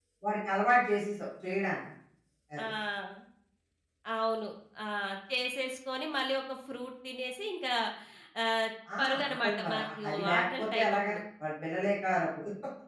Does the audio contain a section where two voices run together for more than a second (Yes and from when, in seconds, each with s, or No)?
Yes, from 9.0 s